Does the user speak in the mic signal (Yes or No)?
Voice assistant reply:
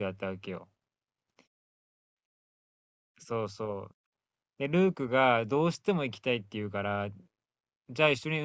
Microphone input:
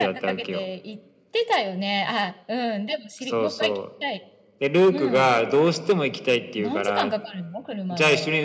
Yes